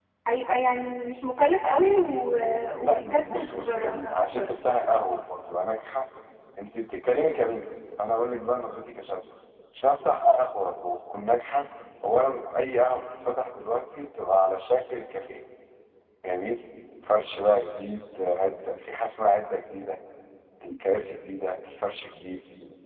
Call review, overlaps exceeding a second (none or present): present